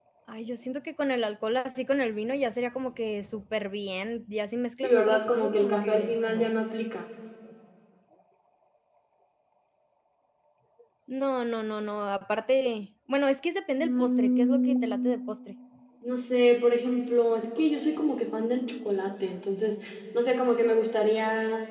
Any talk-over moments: Yes, from 4.8 s

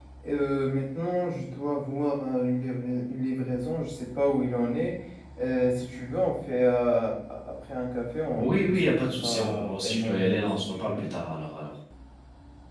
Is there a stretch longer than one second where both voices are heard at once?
Yes, from 8.4 s

